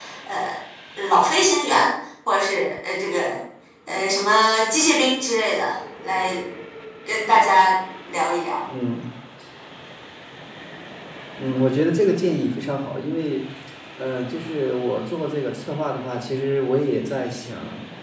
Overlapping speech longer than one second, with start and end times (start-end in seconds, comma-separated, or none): none